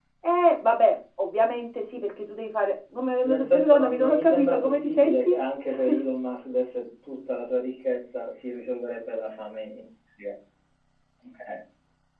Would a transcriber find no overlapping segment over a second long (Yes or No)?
No